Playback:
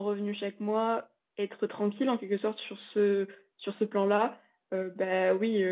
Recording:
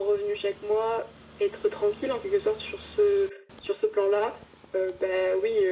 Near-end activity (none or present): none